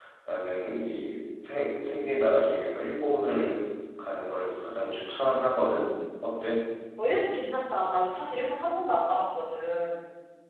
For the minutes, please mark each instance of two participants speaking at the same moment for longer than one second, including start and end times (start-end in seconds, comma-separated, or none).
none